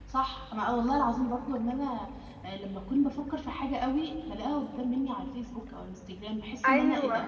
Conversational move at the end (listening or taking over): listening